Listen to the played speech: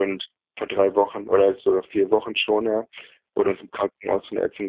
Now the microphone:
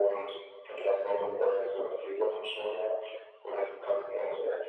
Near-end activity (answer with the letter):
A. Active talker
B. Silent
B